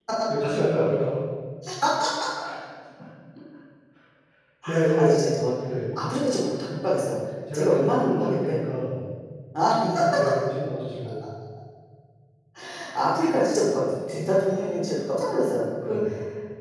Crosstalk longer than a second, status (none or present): present